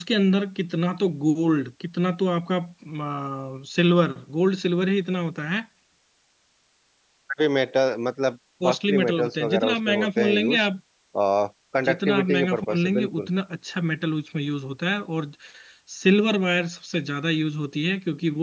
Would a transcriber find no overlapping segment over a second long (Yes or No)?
No